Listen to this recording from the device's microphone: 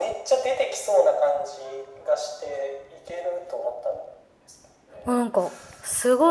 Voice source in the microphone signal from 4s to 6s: both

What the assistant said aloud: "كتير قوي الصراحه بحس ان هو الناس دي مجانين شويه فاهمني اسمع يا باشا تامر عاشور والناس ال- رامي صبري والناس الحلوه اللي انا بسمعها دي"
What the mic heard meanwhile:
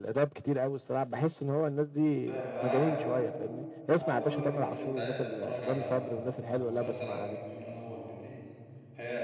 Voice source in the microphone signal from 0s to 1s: echo only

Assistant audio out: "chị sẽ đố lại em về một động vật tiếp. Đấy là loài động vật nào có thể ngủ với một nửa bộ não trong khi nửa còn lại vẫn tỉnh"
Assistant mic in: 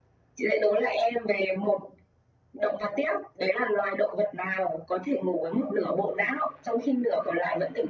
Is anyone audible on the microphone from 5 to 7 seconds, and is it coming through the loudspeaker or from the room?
echo only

